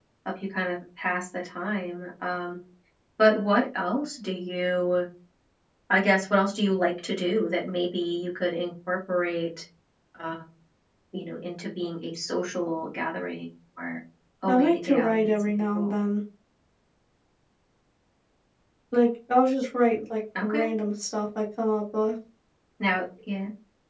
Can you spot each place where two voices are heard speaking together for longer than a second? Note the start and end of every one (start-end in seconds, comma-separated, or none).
14.5-16.0